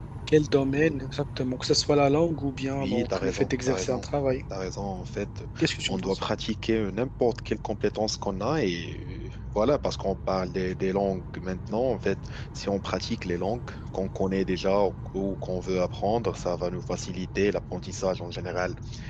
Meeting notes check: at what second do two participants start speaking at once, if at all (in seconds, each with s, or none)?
2.8 s